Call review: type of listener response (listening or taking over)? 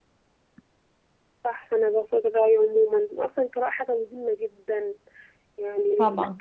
listening